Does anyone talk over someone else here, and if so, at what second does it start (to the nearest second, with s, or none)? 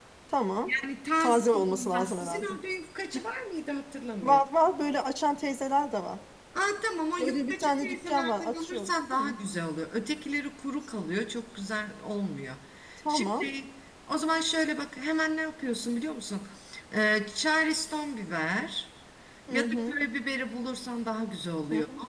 1 s